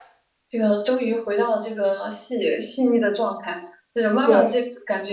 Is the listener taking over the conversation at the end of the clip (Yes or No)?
No